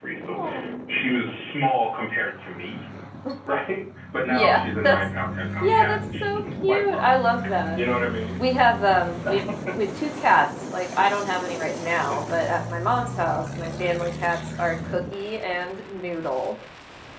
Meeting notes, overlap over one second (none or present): present